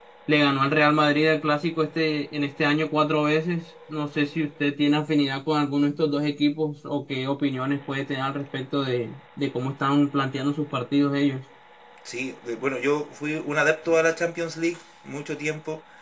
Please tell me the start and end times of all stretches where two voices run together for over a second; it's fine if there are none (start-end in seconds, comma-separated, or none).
none